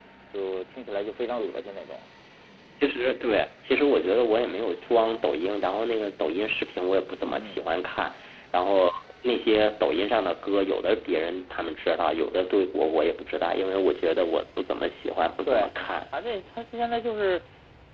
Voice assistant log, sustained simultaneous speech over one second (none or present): none